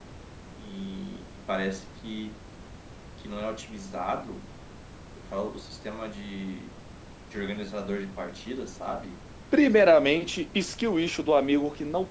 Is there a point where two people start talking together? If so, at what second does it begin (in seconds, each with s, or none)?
none